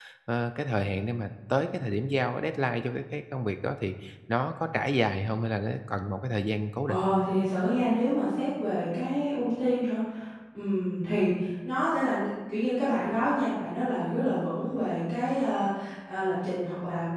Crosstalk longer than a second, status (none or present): none